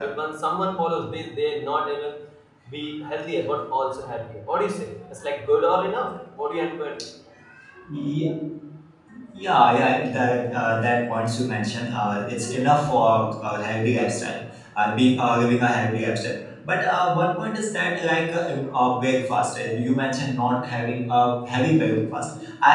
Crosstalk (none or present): none